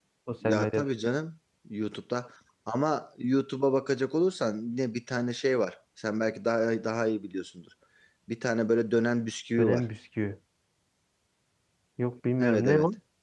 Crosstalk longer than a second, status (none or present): none